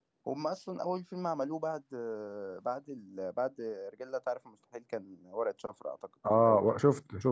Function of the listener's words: taking over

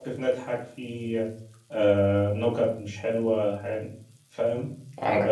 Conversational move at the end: listening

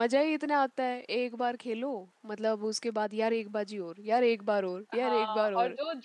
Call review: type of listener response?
taking over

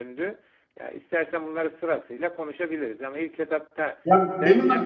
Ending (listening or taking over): taking over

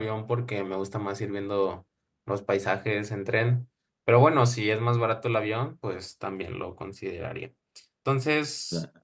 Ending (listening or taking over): listening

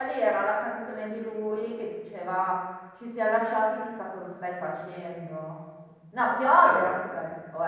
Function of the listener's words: listening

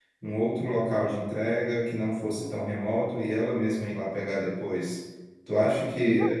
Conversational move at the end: listening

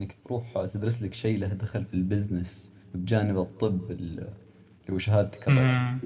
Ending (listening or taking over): taking over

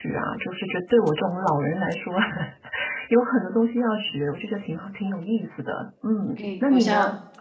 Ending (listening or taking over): taking over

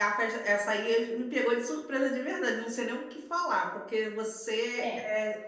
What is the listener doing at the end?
listening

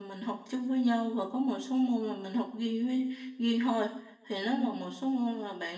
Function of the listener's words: listening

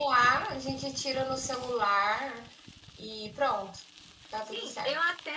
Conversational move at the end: taking over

